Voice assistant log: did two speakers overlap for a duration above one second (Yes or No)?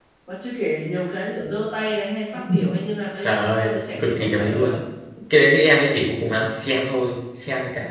Yes